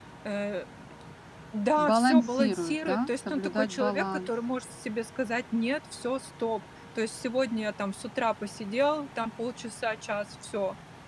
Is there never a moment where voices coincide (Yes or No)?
No